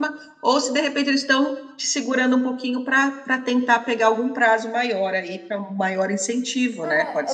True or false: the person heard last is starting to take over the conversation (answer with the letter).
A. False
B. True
B